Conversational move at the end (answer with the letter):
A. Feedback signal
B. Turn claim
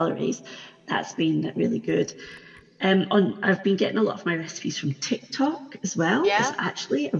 A